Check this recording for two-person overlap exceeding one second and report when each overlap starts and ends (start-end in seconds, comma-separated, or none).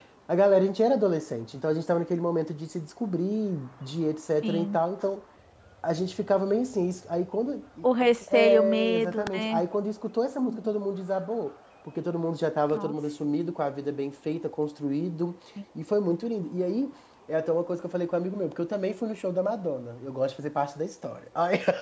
8.3-9.6